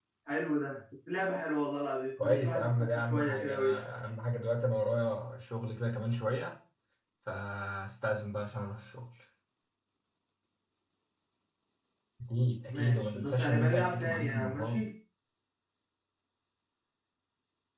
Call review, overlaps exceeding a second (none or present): present